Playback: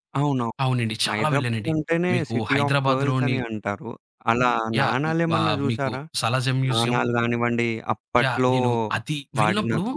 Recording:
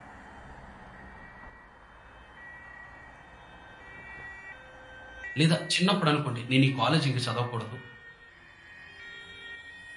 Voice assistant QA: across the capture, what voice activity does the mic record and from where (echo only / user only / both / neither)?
user only